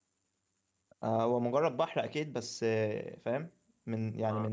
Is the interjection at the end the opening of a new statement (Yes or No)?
No